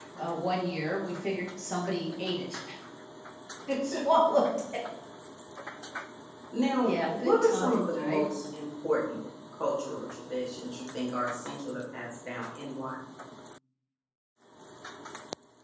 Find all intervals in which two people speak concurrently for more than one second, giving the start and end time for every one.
6.8-8.3

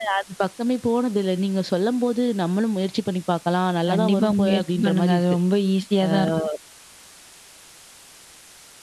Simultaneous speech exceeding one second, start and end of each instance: 3.9-5.2

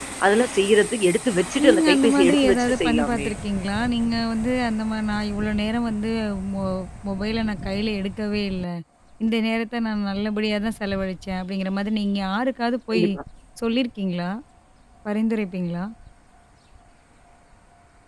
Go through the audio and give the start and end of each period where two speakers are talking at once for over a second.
1.6-3.3

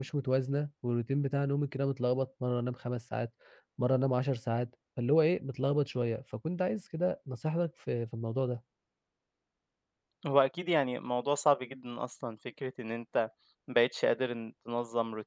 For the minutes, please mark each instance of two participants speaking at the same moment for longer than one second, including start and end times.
none

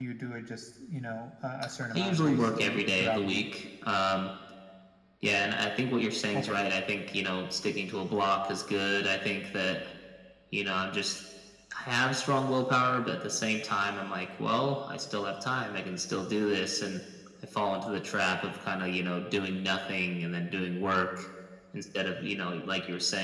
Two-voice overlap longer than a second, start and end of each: 1.9-3.4

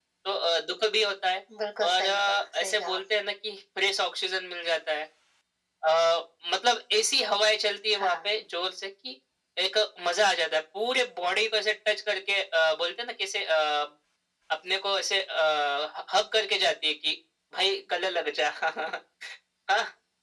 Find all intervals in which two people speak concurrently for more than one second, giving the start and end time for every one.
1.8-3.2

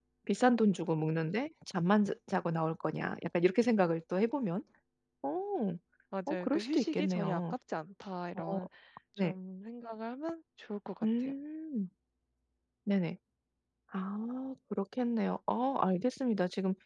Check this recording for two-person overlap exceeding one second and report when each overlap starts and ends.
6.3-7.5

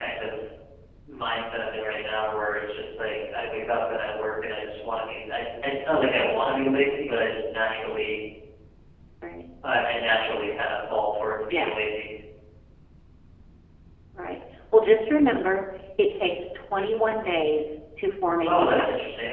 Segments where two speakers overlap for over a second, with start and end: none

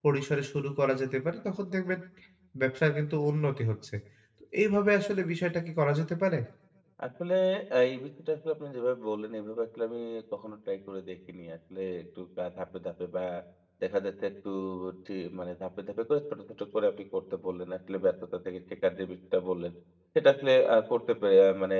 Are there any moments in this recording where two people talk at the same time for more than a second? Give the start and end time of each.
none

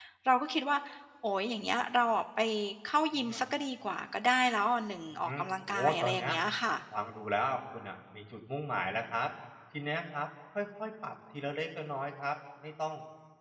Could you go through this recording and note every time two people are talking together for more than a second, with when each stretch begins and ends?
5.1-6.3

